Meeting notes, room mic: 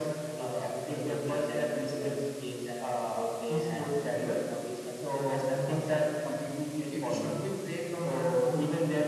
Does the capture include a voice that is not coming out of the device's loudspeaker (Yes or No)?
No